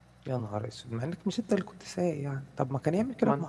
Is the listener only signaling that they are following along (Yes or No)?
Yes